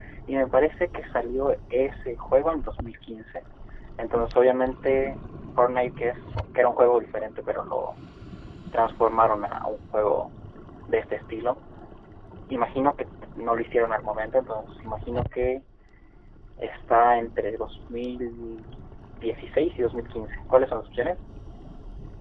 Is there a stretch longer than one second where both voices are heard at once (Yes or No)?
No